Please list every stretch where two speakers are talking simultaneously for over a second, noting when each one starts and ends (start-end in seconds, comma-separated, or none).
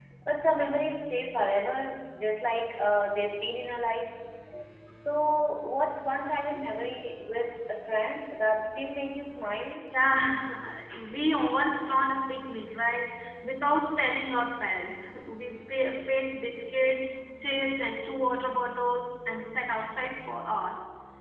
none